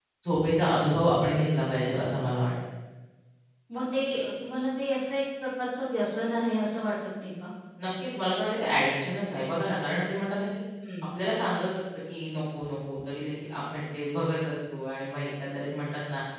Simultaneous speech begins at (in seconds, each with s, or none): none